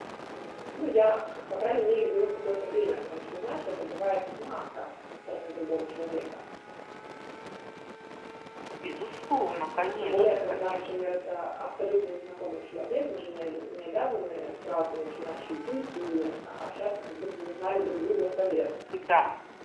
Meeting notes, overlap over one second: present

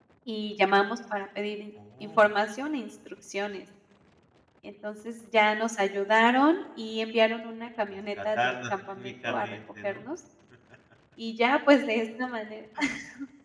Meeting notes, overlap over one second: present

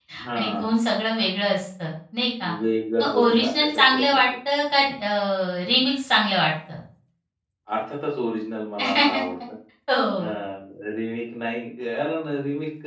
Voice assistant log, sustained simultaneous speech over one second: present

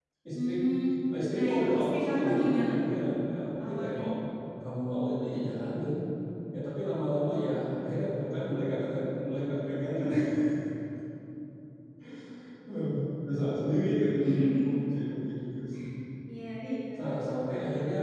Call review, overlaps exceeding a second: present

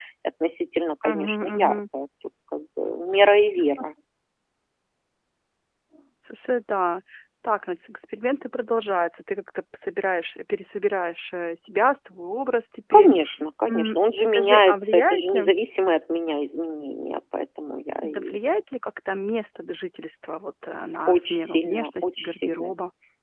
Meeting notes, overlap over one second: present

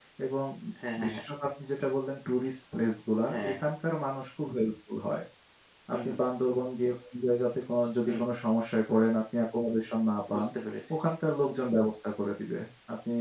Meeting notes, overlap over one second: none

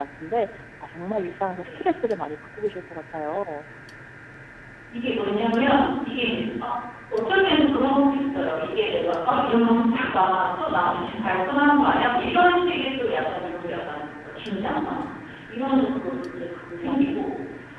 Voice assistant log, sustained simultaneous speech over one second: none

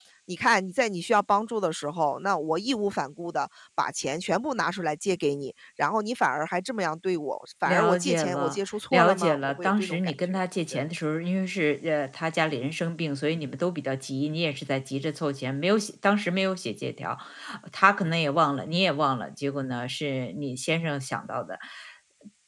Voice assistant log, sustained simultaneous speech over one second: present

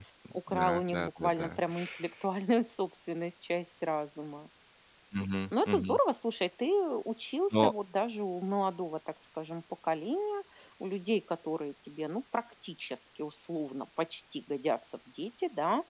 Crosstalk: present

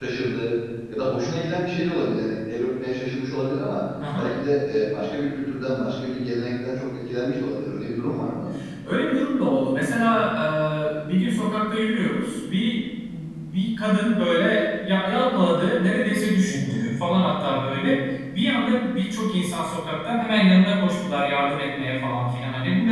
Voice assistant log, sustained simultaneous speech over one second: none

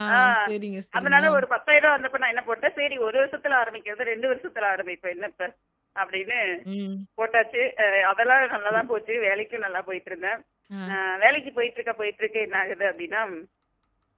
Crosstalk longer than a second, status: none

